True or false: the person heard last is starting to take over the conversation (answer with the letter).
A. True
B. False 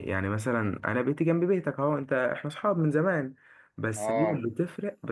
B